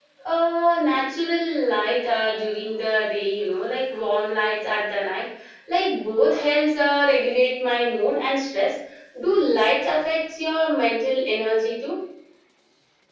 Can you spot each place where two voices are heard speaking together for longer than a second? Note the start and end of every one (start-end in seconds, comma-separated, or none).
none